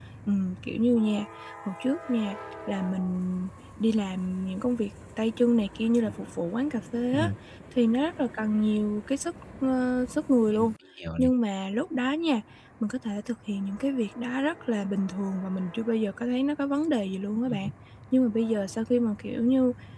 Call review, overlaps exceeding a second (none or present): none